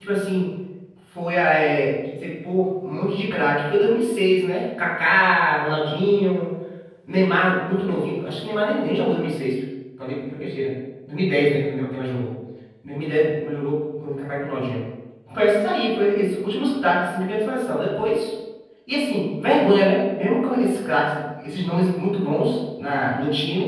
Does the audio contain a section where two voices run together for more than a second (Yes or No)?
No